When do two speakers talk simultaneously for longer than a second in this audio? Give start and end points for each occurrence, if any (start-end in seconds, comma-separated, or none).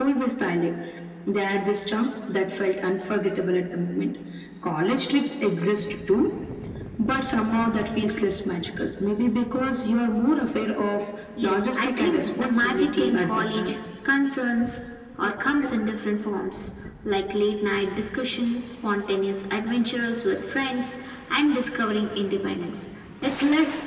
11.4-13.7